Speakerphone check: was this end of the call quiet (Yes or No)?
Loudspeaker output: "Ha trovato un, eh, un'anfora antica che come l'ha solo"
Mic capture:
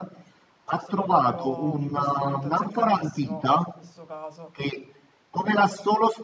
No